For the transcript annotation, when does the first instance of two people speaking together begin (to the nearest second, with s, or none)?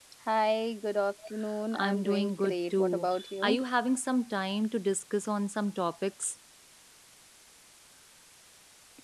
2 s